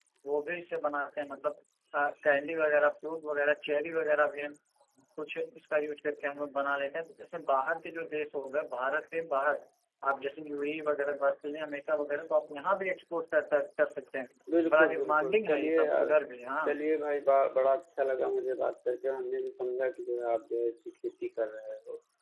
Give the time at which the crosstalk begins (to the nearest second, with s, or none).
15 s